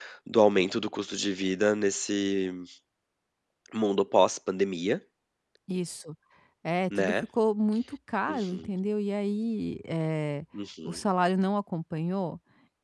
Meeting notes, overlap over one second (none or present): none